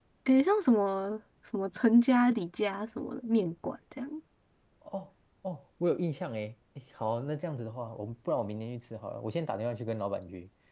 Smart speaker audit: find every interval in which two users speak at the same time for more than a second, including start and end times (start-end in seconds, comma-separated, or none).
none